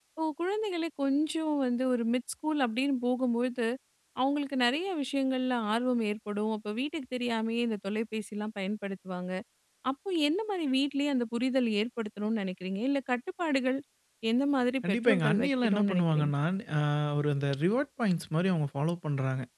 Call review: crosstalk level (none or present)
present